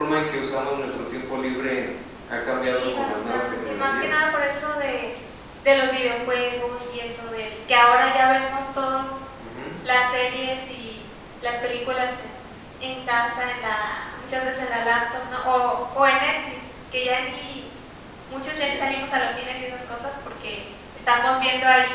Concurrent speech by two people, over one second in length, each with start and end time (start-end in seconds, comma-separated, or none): 2.6-4.1